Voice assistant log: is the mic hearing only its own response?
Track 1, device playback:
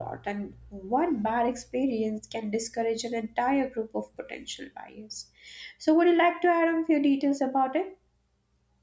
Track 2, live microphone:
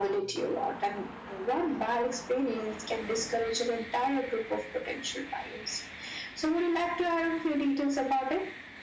Yes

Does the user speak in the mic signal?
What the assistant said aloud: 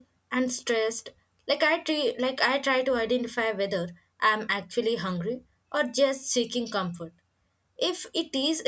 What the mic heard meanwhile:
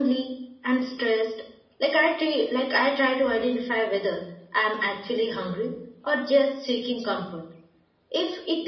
No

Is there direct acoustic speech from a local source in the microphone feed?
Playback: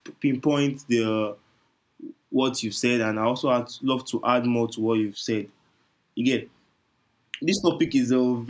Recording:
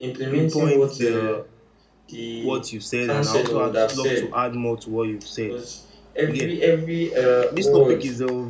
Yes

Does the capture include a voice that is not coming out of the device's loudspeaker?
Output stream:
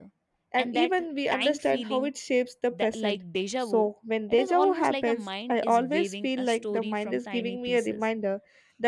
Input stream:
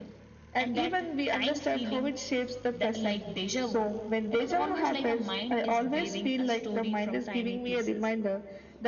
No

